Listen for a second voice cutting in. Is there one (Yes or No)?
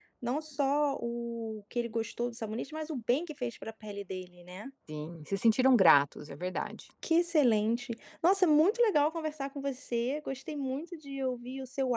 No